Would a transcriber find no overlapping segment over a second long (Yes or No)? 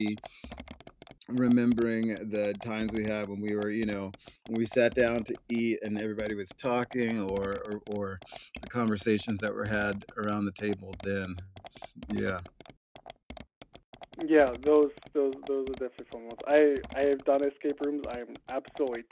Yes